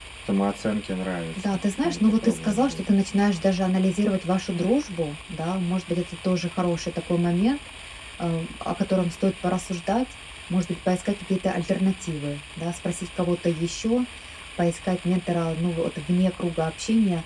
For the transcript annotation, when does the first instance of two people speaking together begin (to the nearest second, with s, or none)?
1 s